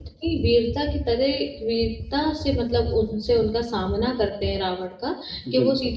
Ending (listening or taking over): listening